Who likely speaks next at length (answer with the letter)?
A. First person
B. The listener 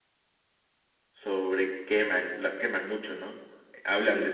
A